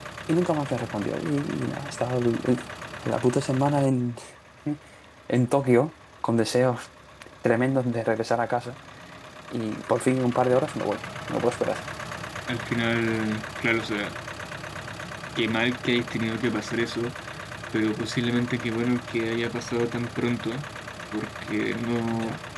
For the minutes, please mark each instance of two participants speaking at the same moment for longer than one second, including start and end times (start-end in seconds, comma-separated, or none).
none